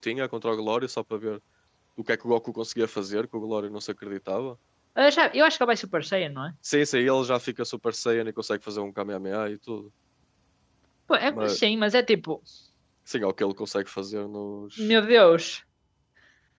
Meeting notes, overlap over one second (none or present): none